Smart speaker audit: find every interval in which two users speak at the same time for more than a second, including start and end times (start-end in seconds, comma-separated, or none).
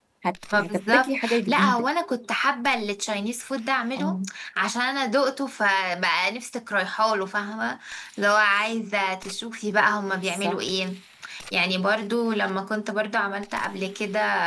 0.6-1.8